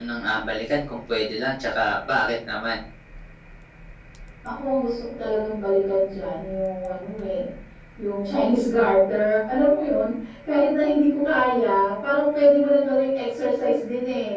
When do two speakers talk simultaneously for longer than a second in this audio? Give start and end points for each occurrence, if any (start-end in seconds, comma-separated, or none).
none